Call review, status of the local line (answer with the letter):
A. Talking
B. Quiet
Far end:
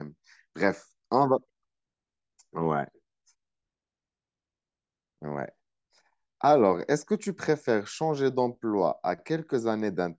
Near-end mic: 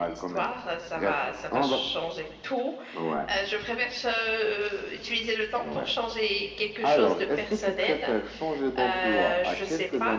A